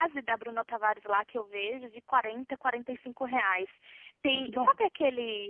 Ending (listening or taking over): listening